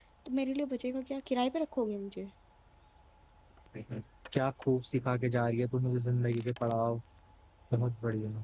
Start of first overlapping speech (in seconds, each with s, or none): none